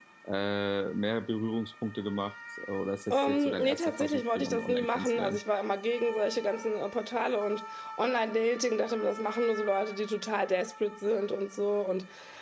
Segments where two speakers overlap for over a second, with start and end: 3.1-5.4

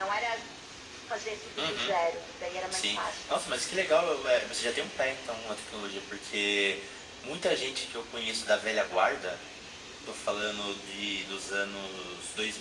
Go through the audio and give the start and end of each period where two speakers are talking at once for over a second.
none

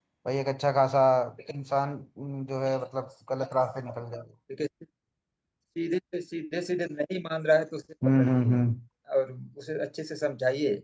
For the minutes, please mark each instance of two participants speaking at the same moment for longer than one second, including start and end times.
none

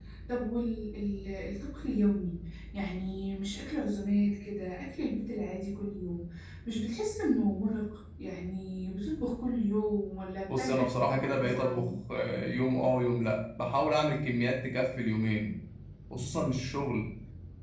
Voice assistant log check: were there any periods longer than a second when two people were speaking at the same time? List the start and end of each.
10.4-11.9

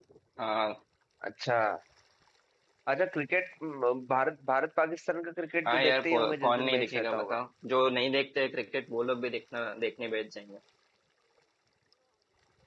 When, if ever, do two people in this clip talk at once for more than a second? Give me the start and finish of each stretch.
5.7-7.4

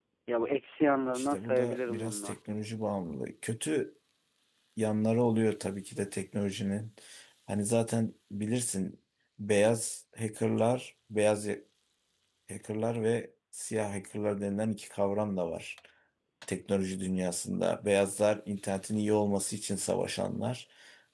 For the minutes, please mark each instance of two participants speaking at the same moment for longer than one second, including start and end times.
1.2-2.4

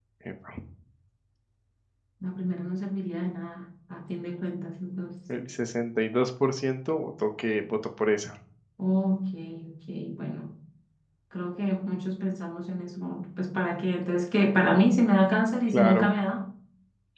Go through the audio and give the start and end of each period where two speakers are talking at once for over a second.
none

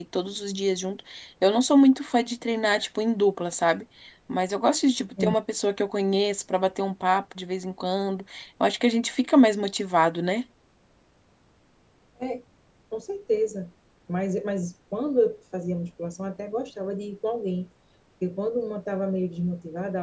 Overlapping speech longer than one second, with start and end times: none

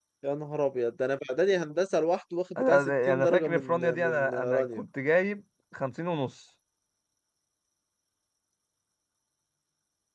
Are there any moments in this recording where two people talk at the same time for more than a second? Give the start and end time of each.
2.6-4.8

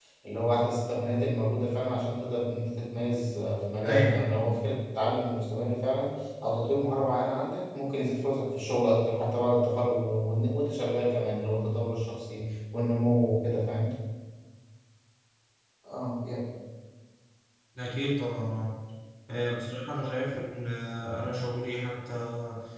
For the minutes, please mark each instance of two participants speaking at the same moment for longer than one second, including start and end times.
none

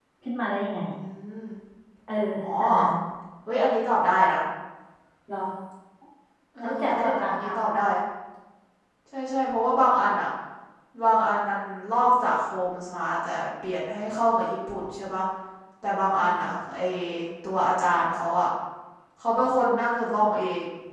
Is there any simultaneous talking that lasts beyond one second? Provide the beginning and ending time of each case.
6.6-7.8

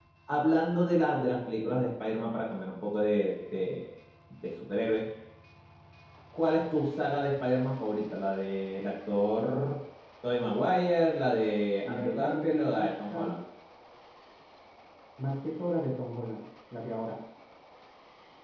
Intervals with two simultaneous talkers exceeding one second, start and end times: 11.8-13.4

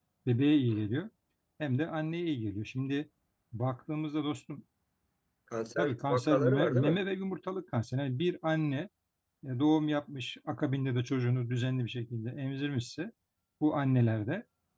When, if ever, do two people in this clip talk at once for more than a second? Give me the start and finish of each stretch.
5.8-7.0

